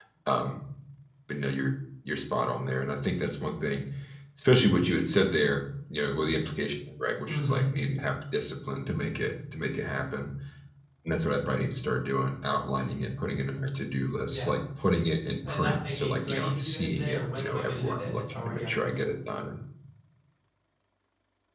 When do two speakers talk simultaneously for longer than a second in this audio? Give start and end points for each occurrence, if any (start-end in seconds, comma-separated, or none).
15.5-19.3